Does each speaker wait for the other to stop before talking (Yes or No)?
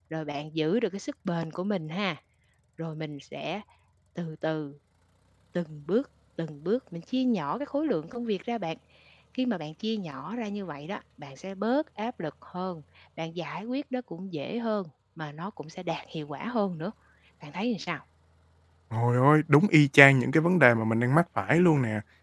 Yes